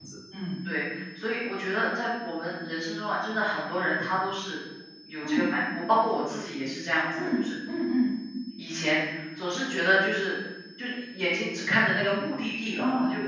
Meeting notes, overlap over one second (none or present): none